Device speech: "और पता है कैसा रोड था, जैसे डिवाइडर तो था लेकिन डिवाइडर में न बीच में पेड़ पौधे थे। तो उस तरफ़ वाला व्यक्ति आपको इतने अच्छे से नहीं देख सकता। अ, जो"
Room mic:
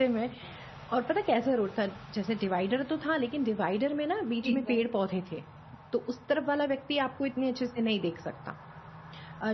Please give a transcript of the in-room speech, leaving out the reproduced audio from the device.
ठीक है।

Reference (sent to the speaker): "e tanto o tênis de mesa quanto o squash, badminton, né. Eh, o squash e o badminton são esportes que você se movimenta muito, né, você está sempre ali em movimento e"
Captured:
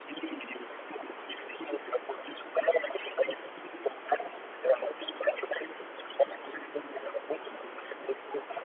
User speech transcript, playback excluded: none

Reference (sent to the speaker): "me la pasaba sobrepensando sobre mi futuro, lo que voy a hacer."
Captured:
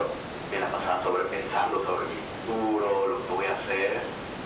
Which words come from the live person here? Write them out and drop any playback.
none

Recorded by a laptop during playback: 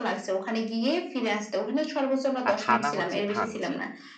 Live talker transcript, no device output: আর থানা হচ্ছে থানচি।

